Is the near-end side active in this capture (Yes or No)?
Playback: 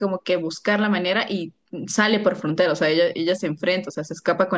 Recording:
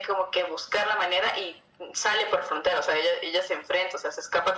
No